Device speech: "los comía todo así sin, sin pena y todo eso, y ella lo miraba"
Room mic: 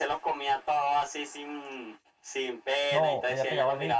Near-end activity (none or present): present